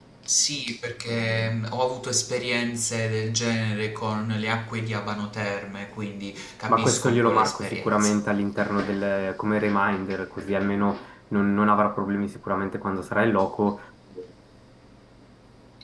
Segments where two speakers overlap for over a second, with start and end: 6.7-8.2

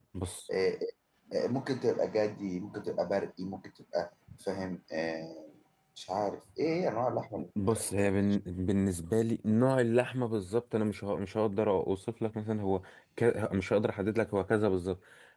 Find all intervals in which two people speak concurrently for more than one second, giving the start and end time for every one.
none

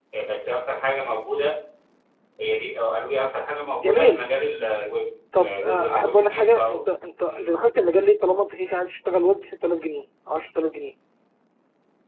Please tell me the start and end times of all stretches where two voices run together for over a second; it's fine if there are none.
5.4-6.8

